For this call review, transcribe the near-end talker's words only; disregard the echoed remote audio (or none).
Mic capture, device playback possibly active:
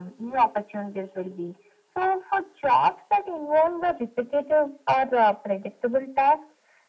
none